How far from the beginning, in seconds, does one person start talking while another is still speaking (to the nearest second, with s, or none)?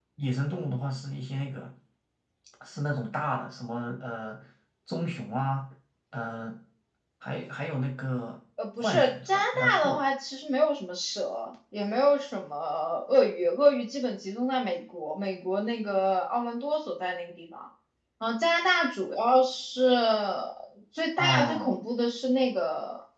9 s